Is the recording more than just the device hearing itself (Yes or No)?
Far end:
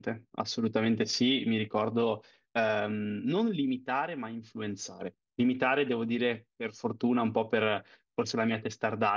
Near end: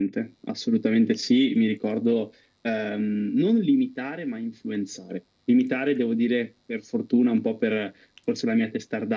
No